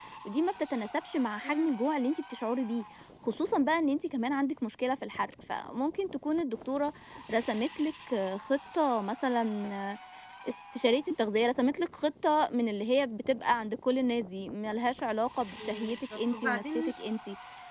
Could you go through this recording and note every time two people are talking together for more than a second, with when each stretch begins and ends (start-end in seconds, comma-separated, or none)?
15.6-16.9